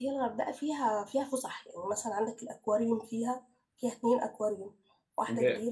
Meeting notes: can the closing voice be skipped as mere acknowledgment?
No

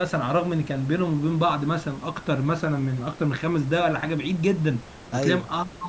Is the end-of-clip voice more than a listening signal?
No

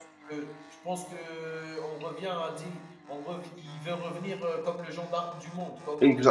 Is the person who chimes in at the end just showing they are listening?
No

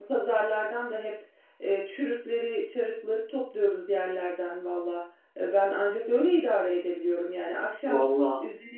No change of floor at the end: Yes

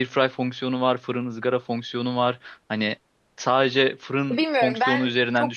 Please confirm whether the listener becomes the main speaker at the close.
Yes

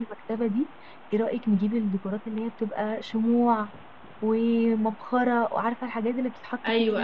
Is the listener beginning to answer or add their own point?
Yes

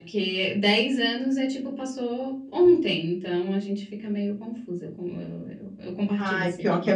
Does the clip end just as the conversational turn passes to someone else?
Yes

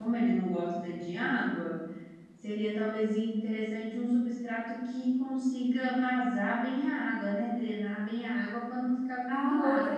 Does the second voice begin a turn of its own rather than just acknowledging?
Yes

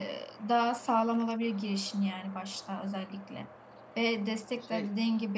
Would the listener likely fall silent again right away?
Yes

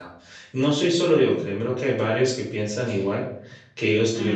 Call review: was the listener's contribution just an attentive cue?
No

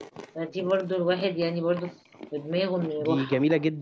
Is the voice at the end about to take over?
Yes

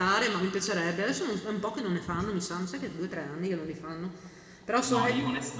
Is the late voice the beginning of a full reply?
Yes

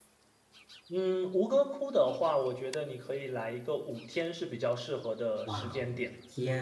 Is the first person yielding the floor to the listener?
Yes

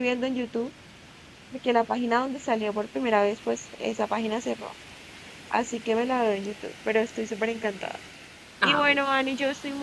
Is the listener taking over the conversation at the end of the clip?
No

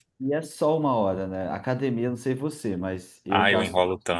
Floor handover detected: Yes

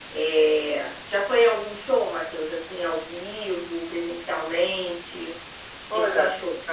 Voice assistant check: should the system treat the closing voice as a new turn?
Yes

